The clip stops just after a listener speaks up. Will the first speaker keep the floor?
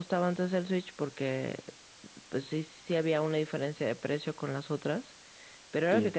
Yes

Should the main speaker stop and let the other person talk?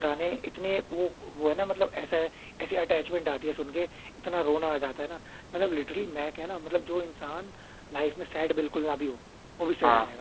Yes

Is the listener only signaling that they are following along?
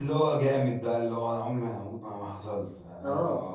No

